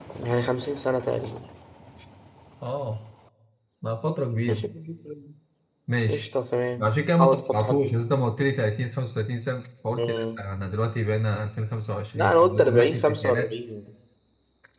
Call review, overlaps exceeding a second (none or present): present